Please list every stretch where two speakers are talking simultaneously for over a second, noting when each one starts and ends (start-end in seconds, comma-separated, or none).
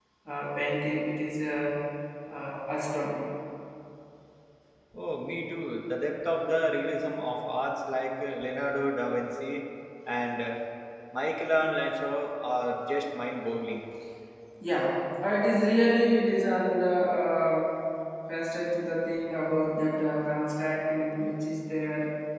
none